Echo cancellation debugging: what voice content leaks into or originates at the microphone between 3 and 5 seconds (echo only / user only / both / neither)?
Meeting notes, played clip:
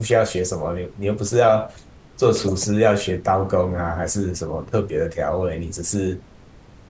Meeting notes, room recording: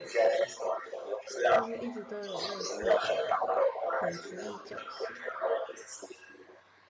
both